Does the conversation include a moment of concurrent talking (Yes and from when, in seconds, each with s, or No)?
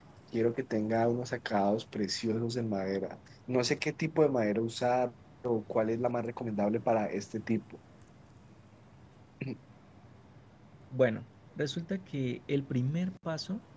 No